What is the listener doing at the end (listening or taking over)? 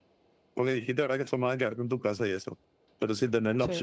listening